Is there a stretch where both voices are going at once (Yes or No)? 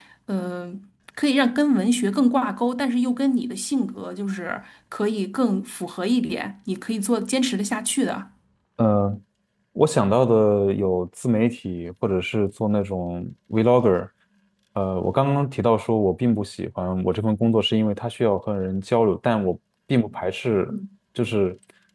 No